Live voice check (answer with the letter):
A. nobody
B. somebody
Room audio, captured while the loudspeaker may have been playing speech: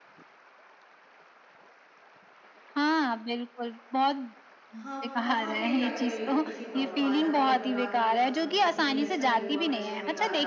B